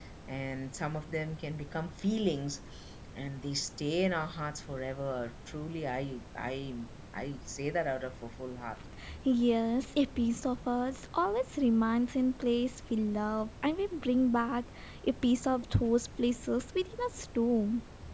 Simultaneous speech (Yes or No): No